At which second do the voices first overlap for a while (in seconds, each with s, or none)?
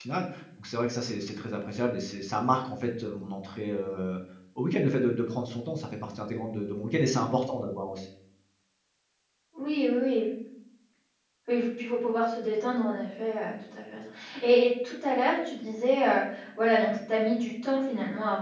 none